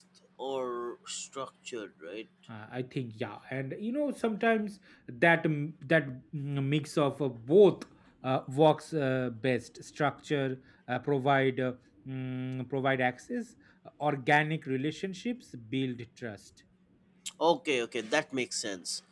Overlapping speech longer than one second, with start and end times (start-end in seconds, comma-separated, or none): none